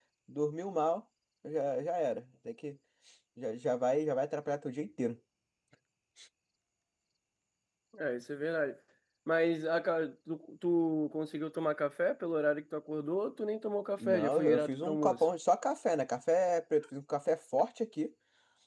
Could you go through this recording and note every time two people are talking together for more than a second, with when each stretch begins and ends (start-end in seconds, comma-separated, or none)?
14.0-15.2